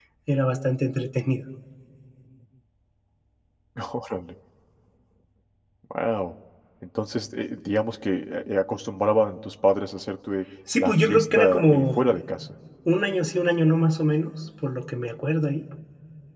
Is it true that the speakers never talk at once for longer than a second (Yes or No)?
No